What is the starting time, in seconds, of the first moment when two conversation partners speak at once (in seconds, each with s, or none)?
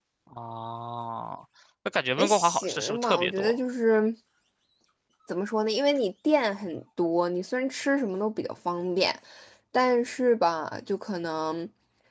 2.2 s